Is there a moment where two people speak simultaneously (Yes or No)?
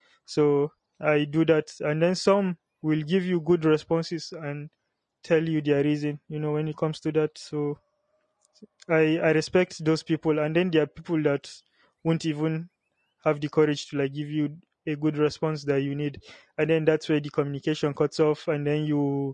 No